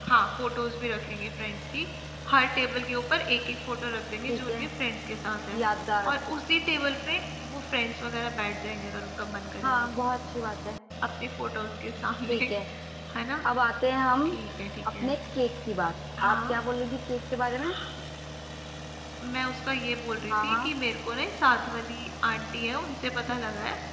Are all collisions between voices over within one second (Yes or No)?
Yes